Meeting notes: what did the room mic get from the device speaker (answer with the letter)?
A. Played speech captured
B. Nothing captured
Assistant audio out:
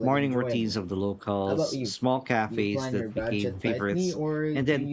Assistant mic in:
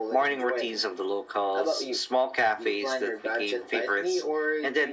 A